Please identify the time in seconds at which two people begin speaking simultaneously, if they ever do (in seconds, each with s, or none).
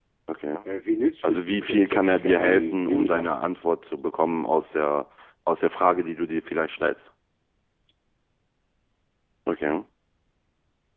1.2 s